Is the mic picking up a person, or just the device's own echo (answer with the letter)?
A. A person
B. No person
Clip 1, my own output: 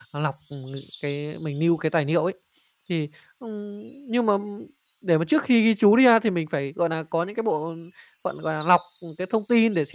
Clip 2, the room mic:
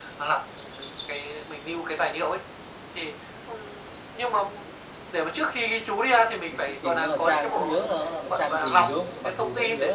A